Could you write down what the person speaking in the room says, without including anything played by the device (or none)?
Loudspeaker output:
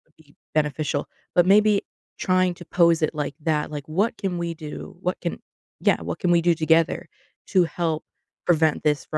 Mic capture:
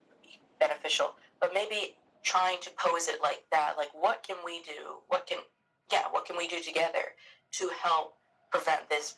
none